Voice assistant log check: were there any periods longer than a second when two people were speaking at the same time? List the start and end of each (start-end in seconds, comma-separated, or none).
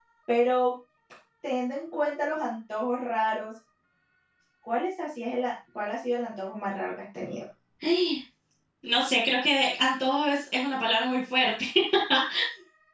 none